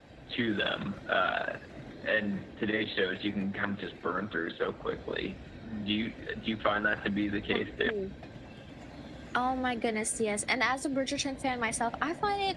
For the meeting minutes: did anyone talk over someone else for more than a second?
No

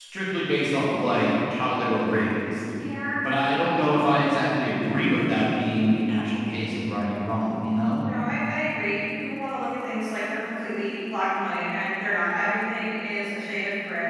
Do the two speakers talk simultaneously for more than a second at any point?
No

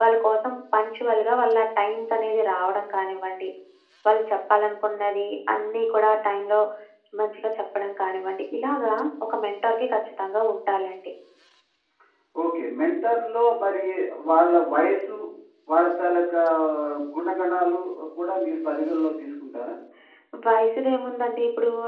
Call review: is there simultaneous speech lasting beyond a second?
No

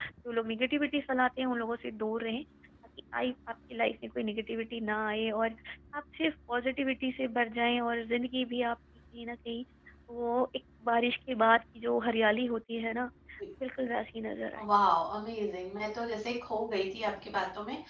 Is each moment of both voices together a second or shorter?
Yes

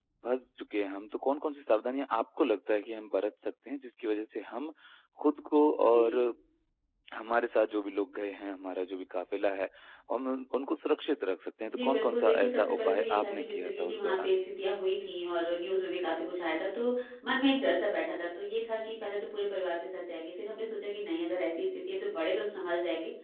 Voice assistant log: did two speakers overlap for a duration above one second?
Yes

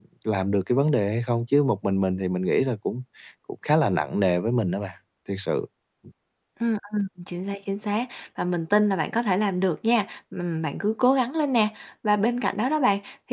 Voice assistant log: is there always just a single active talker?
Yes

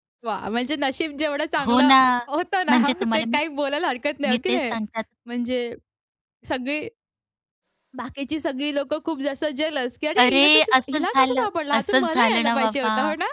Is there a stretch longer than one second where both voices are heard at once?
Yes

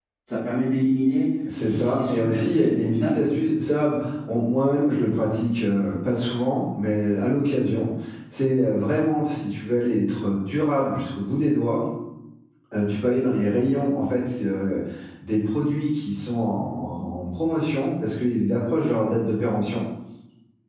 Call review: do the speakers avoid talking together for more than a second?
No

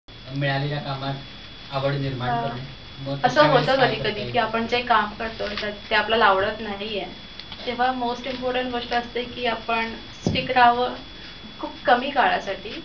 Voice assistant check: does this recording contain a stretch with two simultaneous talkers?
Yes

